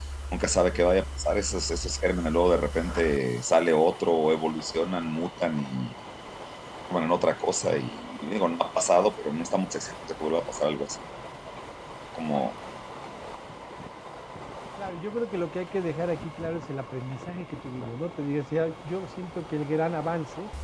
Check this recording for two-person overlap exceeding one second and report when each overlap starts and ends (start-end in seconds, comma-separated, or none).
none